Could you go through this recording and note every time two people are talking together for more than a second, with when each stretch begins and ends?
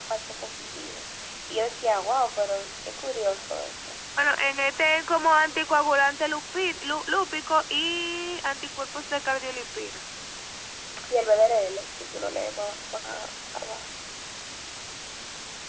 none

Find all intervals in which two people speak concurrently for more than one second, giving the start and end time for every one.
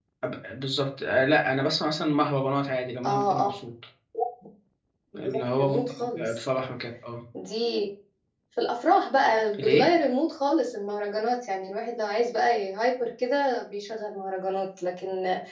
5.2-6.5

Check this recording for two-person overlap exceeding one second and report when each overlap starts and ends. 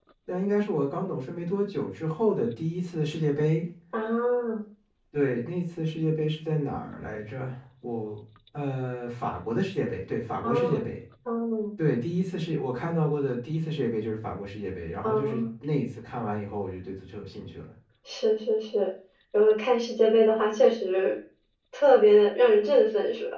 none

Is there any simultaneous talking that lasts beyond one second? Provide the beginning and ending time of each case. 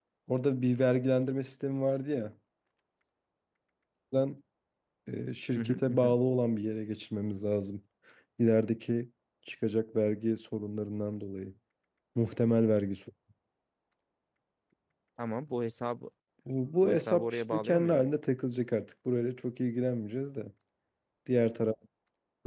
16.8-18.1

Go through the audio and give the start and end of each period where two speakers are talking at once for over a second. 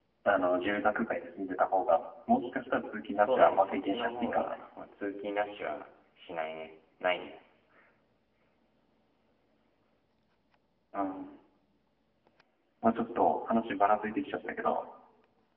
3.2-4.6

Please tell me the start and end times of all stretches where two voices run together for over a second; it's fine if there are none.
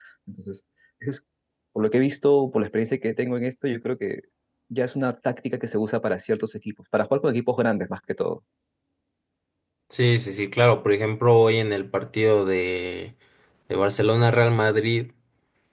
none

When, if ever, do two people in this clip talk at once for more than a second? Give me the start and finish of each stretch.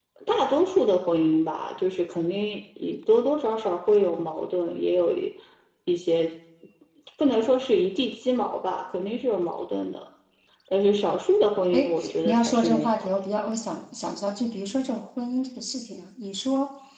11.7-13.1

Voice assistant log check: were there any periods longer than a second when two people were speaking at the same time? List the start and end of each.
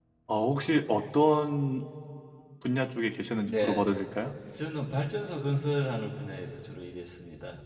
none

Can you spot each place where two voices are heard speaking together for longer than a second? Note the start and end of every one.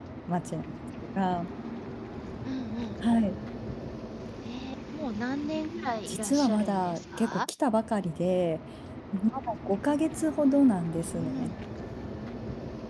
6.1-7.5

